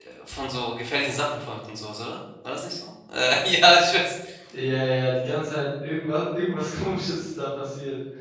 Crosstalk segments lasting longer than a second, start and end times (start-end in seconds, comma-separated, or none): none